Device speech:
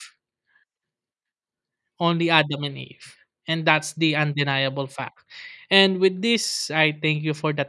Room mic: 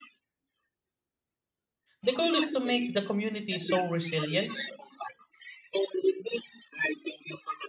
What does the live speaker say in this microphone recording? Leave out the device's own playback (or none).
The goal is to make the community so resilient,